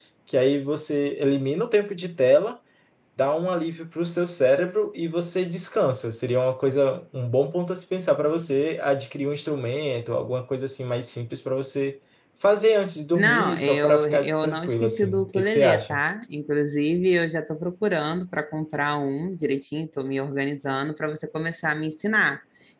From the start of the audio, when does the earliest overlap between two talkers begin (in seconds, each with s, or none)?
13.2 s